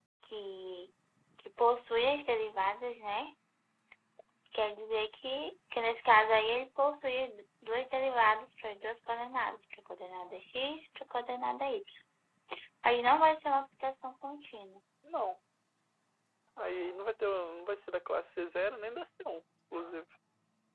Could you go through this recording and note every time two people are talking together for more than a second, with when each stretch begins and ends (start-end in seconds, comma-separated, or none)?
none